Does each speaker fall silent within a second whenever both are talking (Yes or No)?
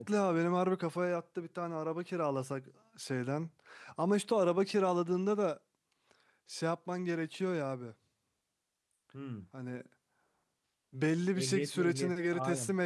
No